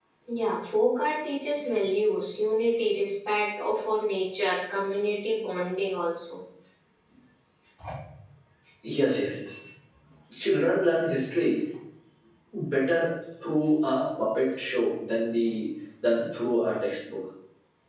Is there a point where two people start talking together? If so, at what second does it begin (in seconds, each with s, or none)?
none